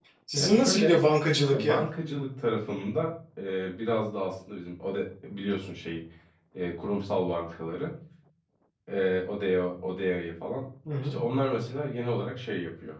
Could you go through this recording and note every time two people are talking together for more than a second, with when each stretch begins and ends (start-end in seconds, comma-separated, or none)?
none